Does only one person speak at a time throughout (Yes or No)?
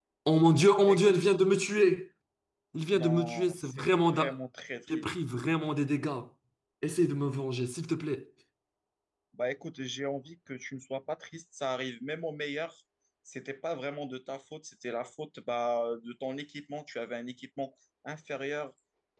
No